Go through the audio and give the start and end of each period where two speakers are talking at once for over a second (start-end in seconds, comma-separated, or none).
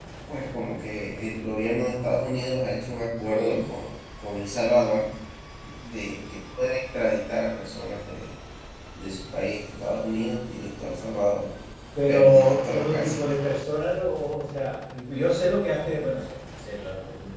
12.1-13.4